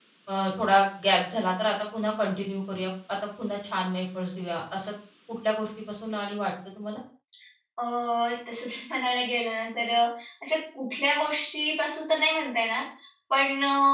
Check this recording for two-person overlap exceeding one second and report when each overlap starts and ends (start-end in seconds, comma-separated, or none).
none